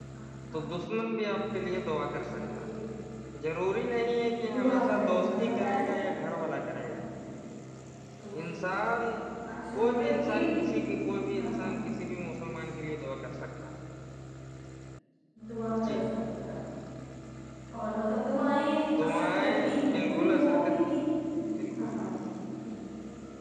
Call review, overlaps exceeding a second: present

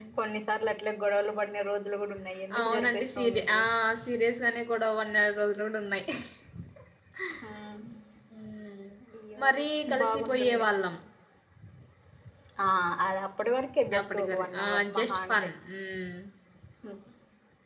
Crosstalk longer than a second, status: present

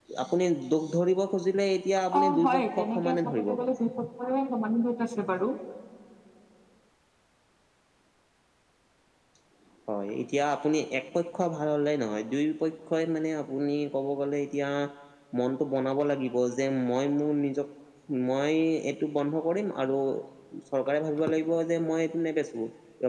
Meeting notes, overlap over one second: present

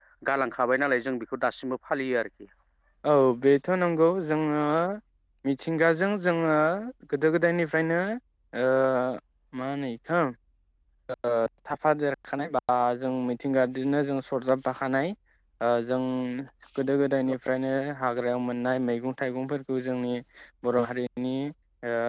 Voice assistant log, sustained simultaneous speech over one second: none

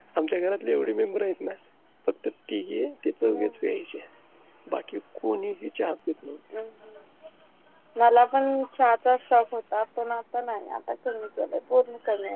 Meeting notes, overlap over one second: none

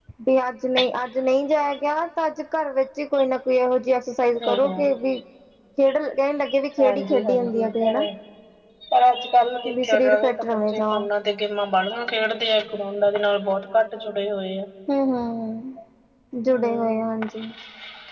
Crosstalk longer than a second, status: present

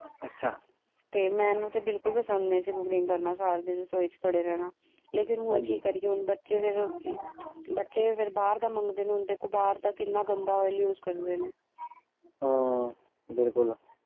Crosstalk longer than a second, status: none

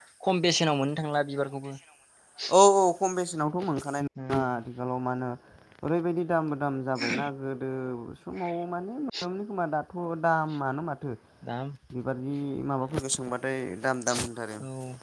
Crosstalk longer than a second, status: none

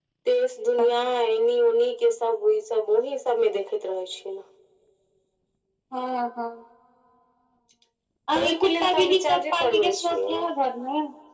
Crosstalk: present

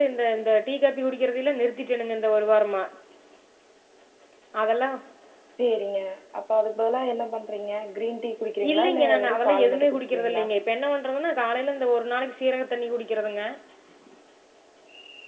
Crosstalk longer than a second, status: present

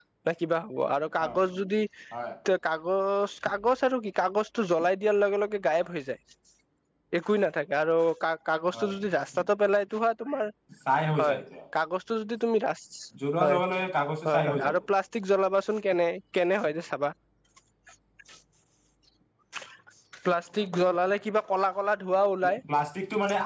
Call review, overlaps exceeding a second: none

